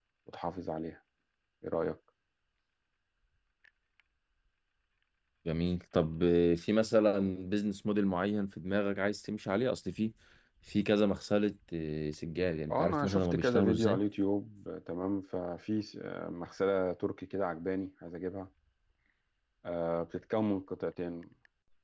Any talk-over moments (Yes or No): Yes